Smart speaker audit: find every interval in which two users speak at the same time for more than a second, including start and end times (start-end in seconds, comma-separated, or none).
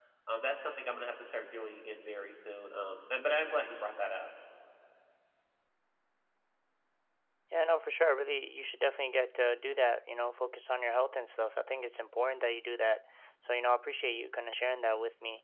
none